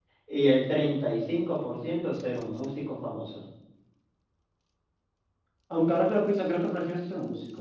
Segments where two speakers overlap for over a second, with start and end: none

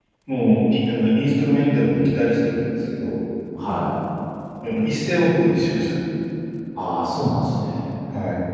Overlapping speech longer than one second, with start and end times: none

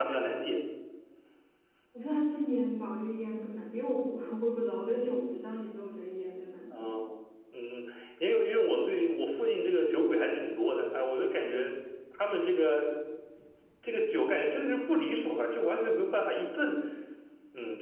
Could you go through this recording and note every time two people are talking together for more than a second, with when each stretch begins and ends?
none

